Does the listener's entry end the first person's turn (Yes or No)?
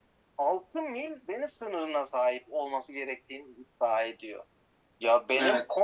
No